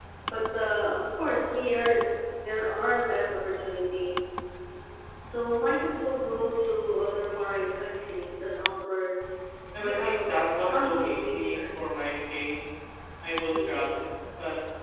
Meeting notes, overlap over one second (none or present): present